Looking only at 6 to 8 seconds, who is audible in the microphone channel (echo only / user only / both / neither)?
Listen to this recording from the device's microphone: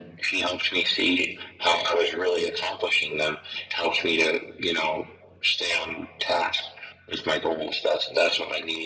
echo only